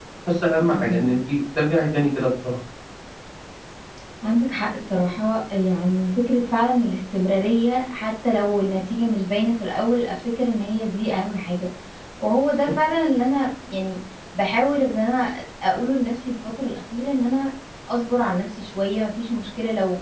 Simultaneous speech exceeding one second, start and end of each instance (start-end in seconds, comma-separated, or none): none